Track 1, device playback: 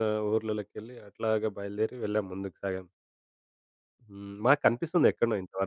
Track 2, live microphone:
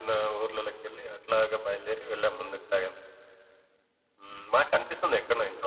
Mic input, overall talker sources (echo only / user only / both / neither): echo only